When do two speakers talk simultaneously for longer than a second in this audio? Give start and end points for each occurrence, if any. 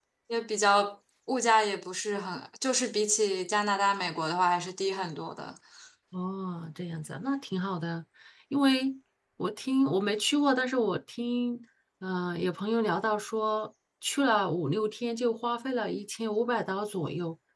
none

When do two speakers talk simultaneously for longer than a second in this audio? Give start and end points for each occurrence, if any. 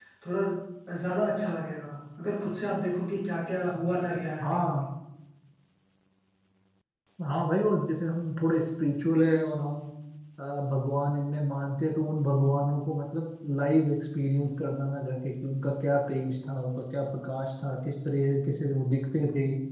none

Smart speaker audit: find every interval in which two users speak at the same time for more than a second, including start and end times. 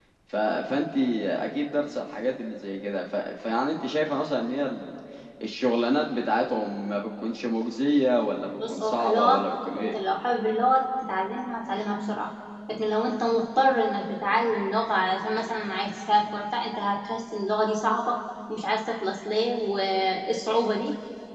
8.6-10.0

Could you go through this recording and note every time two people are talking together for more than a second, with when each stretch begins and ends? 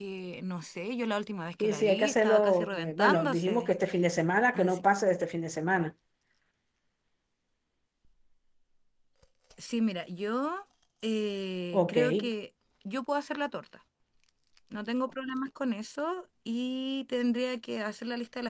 1.6-3.7

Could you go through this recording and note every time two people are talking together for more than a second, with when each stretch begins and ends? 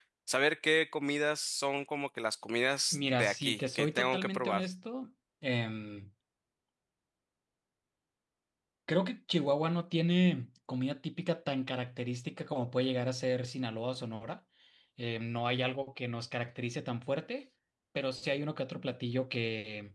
2.9-4.6

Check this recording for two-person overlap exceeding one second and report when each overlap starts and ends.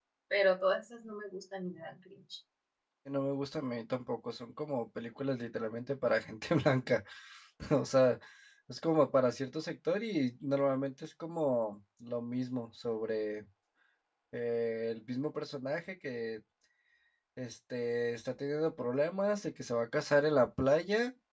none

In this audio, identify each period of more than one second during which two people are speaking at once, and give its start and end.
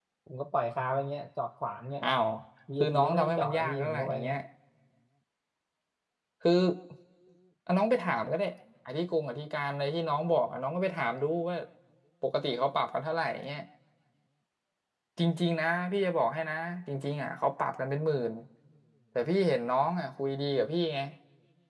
2.8-4.4

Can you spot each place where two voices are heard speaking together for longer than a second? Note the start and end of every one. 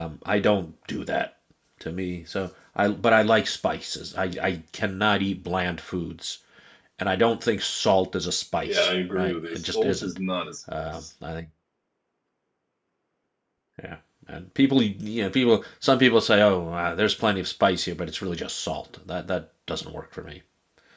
8.6-10.2

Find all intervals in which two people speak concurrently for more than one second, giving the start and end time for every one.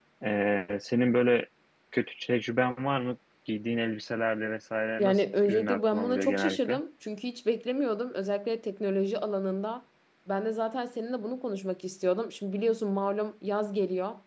5.0-6.8

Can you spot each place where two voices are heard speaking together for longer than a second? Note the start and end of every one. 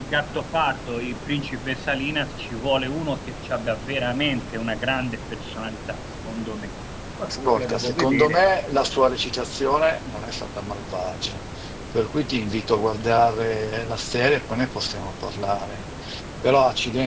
7.2-8.5

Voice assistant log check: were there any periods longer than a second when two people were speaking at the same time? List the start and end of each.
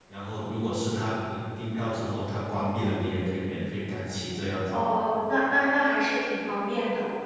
none

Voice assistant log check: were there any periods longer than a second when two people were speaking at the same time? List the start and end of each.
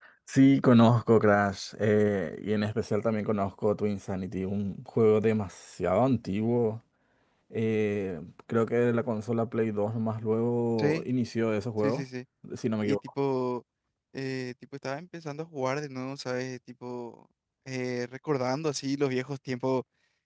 none

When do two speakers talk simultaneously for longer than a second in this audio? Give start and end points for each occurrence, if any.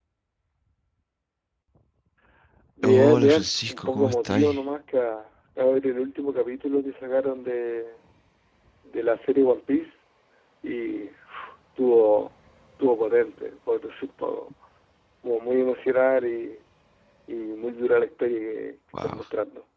2.8-4.5

